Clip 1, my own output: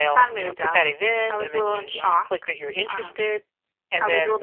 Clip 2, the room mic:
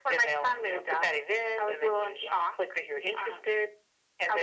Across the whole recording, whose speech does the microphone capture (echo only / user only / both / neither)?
echo only